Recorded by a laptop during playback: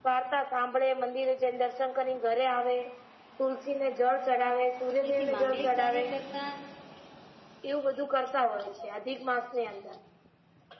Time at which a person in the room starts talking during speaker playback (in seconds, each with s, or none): 5.0 s